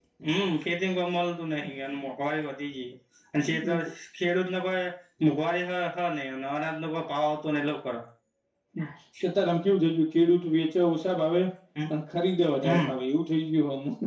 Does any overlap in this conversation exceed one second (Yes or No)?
No